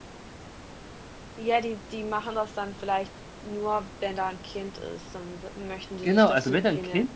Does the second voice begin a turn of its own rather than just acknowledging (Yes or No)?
Yes